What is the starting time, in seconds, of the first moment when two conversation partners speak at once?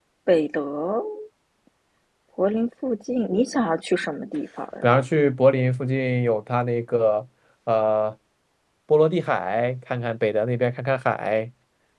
none

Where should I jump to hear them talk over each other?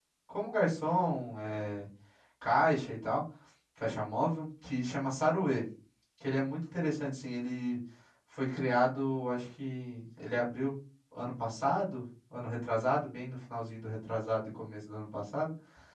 none

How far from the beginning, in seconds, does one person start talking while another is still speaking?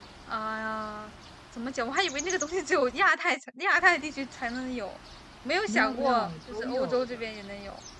5.7 s

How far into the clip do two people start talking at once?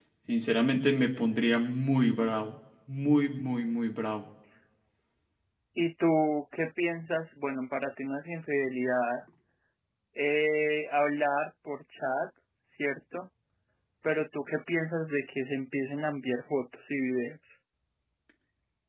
none

